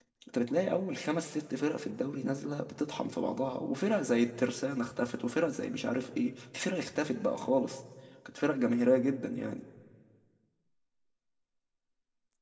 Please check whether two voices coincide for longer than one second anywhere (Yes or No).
No